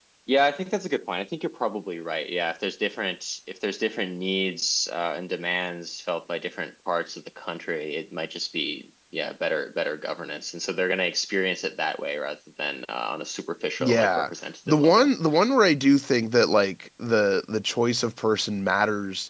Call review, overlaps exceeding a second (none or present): none